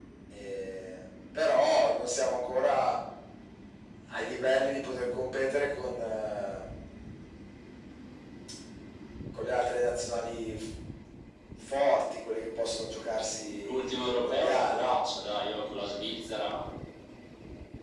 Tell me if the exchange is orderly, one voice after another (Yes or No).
No